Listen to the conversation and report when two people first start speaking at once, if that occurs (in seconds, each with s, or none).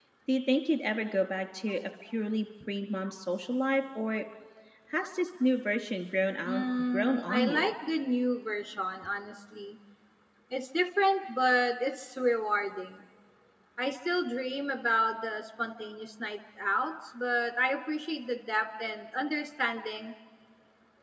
6.5 s